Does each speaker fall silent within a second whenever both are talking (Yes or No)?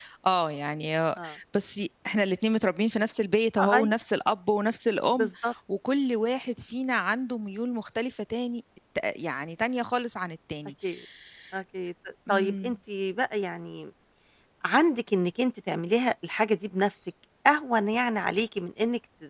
Yes